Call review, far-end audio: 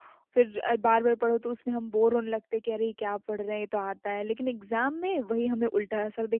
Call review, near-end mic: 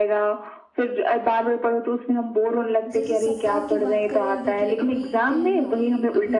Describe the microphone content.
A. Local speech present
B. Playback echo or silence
A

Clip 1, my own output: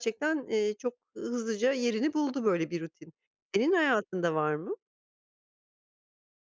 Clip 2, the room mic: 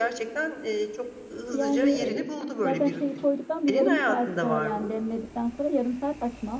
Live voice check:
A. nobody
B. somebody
B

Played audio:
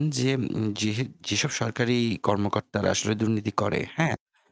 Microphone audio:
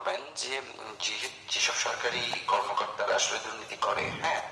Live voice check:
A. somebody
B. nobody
B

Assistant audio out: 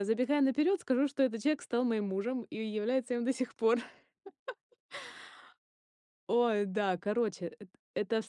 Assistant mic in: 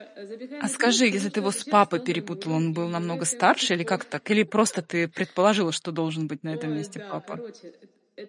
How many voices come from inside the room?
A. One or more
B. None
A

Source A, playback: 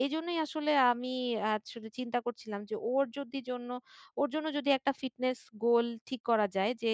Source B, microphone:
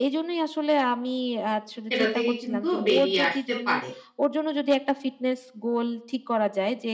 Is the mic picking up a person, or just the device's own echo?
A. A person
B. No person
A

